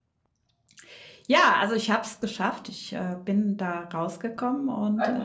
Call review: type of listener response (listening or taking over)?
taking over